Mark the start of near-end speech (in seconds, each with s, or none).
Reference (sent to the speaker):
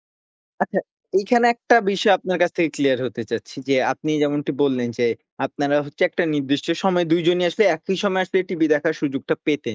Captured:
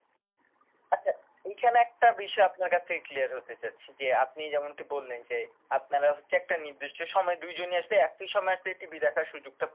none